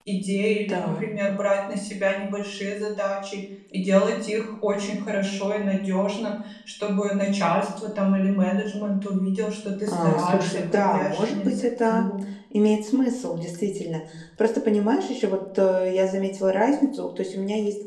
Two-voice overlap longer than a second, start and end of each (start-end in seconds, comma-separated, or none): 9.9-12.0